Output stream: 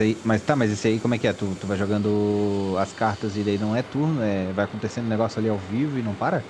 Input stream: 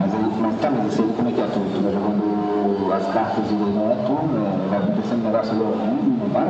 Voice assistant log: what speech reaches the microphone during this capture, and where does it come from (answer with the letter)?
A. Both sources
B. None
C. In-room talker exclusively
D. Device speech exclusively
D